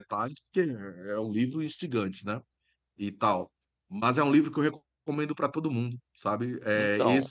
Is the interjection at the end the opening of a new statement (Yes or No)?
No